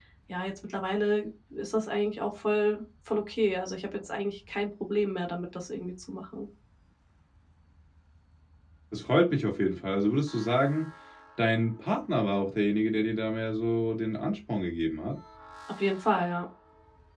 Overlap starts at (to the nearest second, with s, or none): none